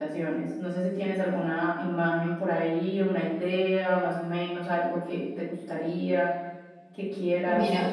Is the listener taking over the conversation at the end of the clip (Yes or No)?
Yes